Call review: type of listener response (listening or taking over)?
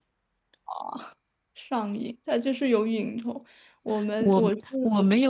taking over